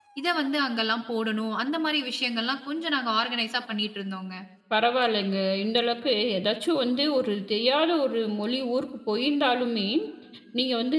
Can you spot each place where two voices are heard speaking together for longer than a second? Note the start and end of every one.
none

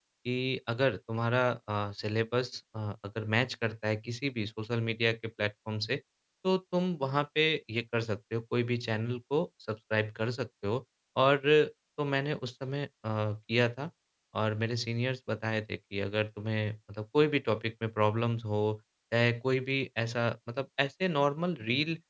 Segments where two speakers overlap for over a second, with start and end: none

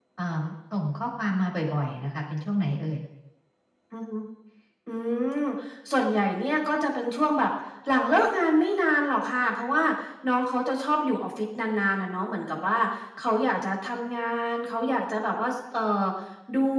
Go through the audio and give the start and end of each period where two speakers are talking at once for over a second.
none

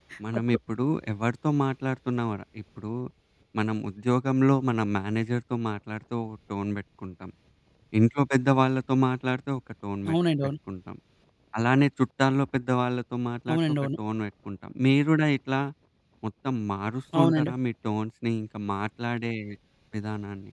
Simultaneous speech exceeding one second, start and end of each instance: none

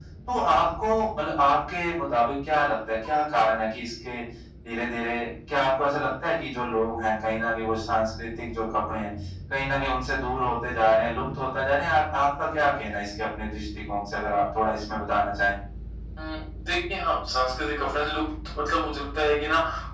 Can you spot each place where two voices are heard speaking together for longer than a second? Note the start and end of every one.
none

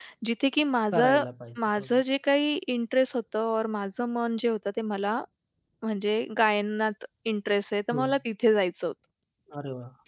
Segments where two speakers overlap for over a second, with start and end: none

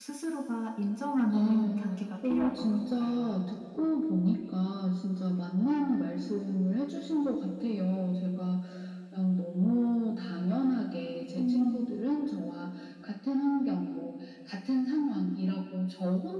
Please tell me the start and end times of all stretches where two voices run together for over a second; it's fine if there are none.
2.2-3.5

